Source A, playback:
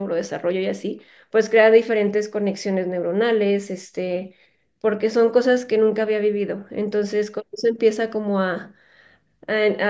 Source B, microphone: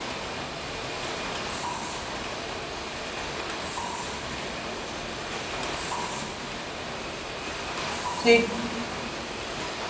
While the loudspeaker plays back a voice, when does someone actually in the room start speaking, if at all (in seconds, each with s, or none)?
8.2 s